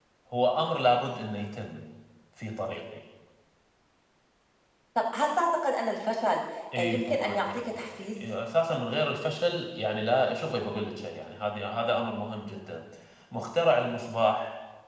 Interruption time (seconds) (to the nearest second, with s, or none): 7 s